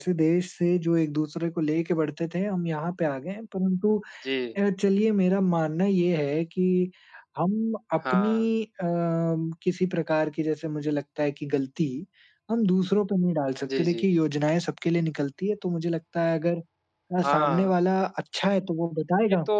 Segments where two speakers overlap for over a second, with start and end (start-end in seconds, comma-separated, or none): none